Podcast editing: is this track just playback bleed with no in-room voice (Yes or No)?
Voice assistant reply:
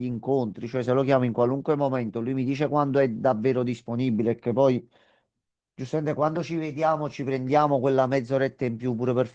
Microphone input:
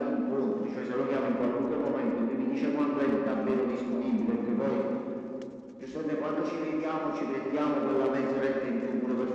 Yes